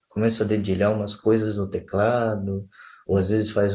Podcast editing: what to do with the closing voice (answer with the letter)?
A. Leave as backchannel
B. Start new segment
A